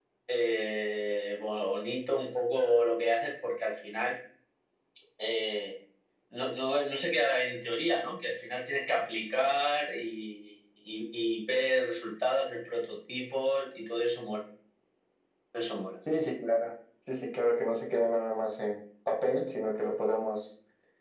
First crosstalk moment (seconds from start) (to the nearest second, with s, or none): none